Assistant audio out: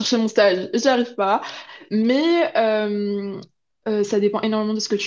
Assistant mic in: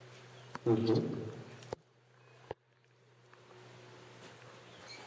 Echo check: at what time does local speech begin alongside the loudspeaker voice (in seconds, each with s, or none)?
0.6 s